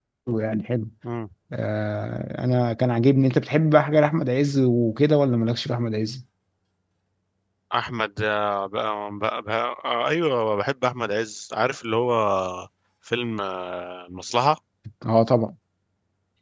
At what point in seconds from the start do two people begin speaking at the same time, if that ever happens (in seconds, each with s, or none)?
none